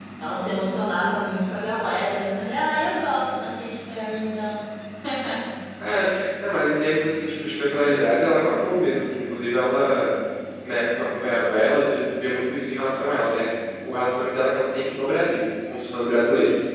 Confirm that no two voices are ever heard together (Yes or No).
Yes